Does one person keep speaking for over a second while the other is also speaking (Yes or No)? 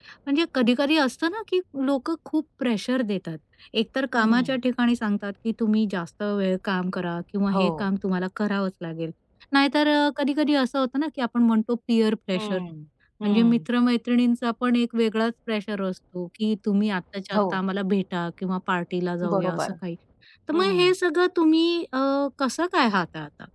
No